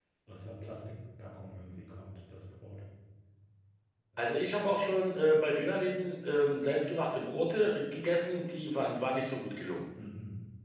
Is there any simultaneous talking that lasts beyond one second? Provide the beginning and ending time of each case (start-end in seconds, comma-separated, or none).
none